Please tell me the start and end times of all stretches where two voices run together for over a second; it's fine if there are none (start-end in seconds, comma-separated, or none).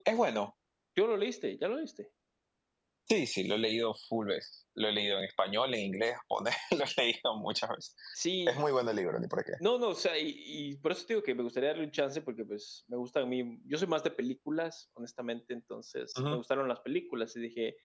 none